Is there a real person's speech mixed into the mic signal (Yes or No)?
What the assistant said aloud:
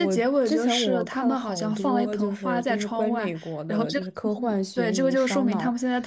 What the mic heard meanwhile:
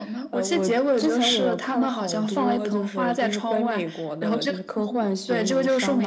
No